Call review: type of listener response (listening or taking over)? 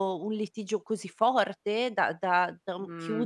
taking over